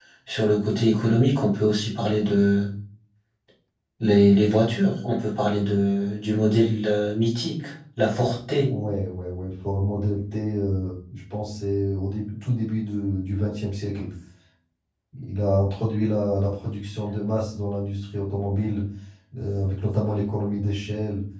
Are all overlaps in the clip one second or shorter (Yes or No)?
Yes